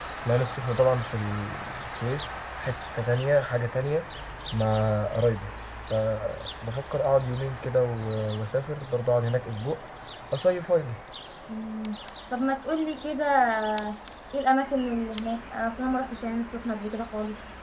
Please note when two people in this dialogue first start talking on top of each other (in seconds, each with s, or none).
none